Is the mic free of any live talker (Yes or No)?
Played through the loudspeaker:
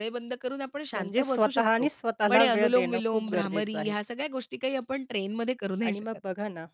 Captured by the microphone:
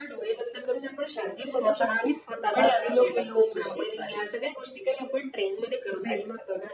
Yes